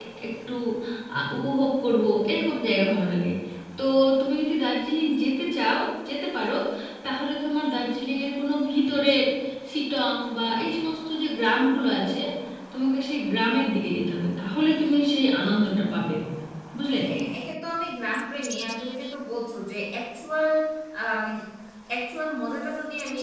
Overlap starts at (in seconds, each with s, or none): none